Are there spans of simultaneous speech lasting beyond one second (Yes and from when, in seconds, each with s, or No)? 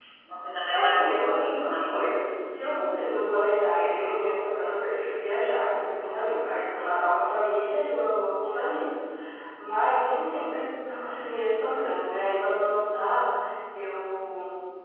Yes, from 0.7 s